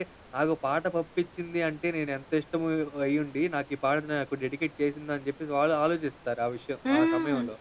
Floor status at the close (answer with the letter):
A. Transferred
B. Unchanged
A